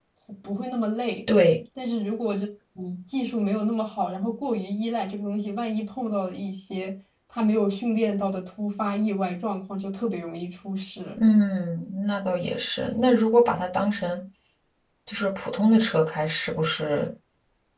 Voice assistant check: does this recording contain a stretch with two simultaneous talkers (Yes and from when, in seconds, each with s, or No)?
No